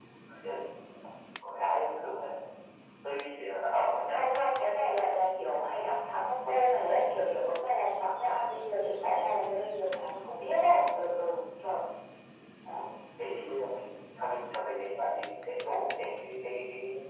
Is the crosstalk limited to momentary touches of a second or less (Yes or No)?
Yes